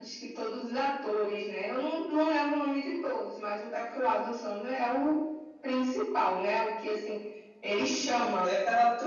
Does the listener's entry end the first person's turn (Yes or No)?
Yes